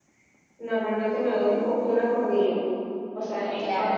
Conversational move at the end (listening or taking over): listening